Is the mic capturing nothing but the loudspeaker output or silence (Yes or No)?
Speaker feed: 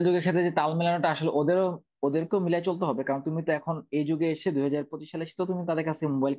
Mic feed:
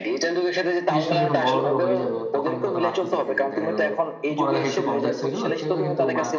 No